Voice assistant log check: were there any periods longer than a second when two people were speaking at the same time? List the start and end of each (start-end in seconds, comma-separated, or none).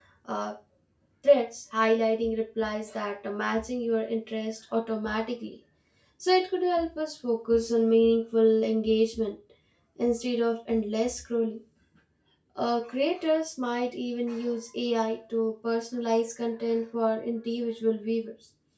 none